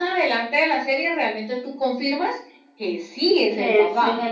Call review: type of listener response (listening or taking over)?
taking over